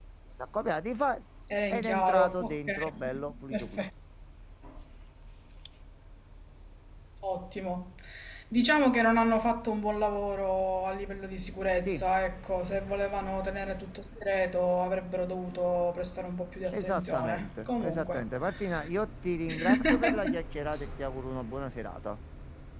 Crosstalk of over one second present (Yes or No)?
Yes